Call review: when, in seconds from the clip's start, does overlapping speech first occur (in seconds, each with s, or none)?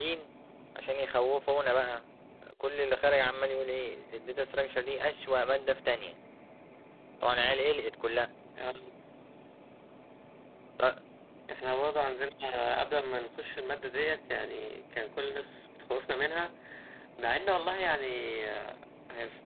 none